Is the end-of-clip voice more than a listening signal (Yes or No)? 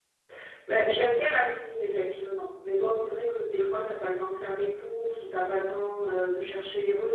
No